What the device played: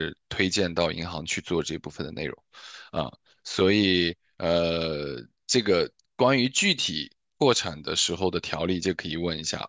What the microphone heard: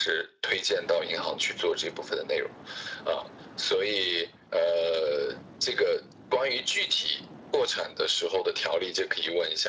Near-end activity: none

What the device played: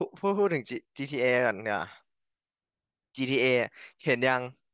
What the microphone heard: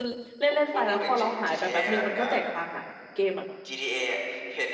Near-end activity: present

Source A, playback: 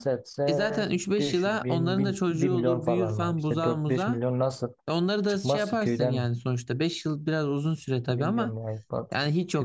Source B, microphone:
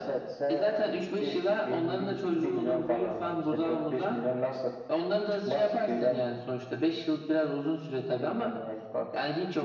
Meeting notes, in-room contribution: none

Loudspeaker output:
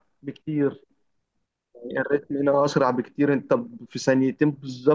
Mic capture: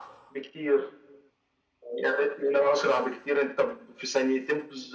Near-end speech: none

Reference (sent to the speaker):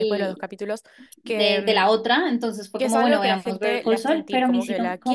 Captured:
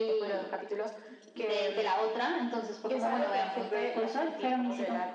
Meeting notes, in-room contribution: none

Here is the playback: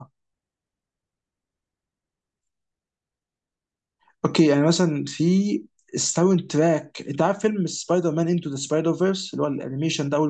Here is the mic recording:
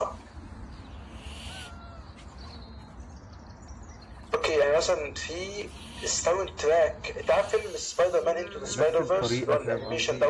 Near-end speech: present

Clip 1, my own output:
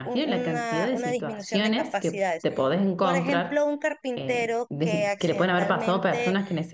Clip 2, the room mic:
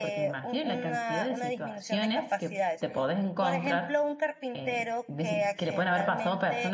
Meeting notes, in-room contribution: none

